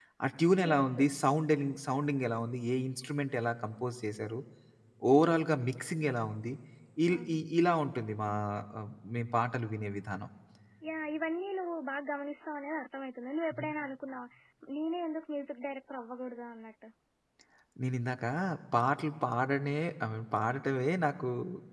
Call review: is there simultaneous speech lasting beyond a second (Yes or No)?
No